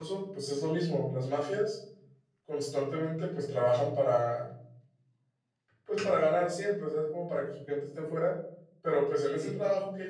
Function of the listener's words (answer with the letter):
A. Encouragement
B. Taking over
A